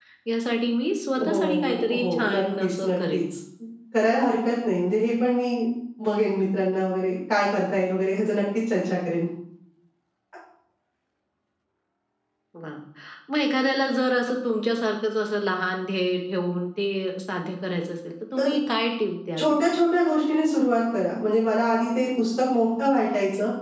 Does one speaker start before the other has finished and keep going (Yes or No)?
Yes